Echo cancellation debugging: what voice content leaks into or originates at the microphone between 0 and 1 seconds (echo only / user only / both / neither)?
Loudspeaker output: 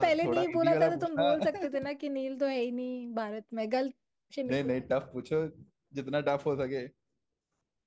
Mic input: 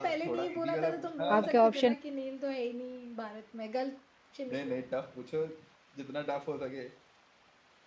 echo only